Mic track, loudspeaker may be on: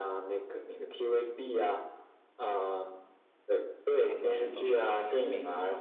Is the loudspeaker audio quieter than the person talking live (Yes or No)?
No